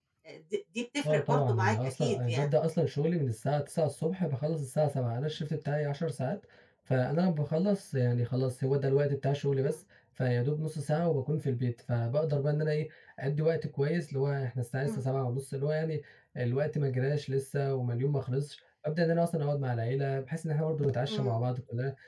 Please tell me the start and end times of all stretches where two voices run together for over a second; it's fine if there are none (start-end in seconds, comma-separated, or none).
1.0-2.5